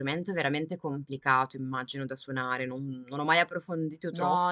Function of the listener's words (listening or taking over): taking over